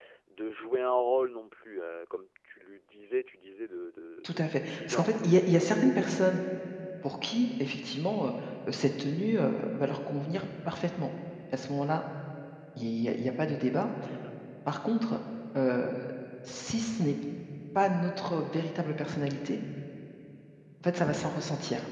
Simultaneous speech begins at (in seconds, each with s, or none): 4.2 s